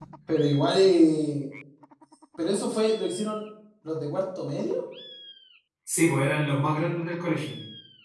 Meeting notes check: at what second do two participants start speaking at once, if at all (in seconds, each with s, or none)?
none